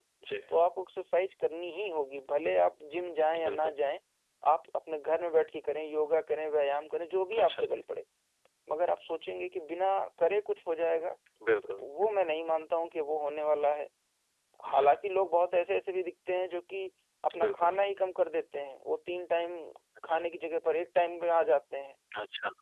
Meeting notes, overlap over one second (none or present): none